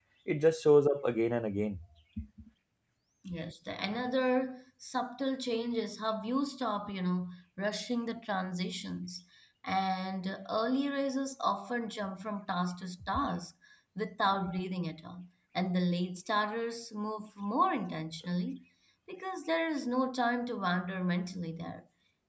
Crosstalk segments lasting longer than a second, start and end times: none

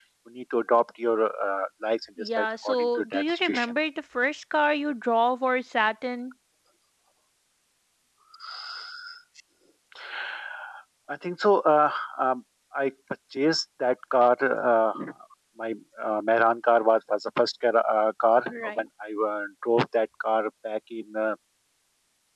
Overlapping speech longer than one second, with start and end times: 2.2-3.6

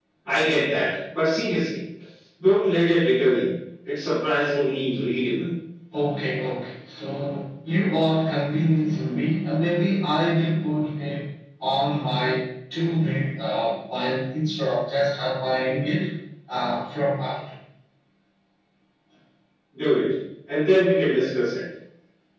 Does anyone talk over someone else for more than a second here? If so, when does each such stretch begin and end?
none

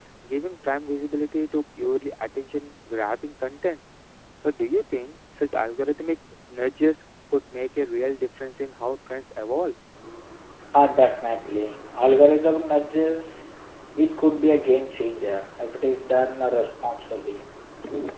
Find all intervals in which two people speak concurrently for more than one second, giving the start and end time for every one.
none

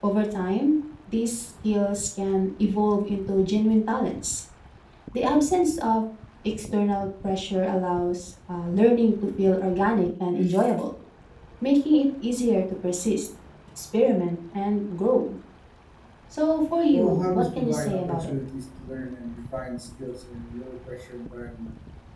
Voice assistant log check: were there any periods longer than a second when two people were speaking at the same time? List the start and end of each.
16.9-18.3

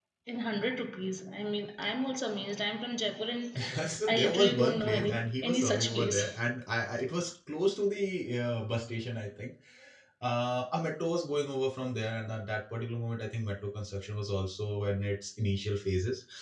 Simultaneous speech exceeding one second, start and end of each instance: 4.1-6.2

